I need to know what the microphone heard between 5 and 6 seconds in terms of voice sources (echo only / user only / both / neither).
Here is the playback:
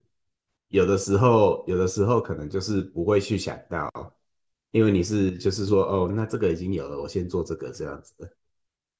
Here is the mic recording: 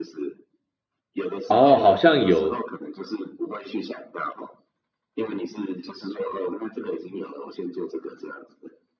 echo only